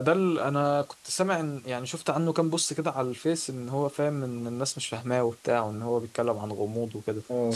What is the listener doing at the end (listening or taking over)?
taking over